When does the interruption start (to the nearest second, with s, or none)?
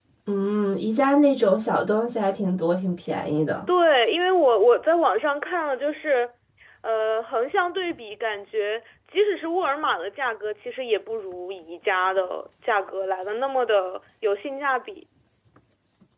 none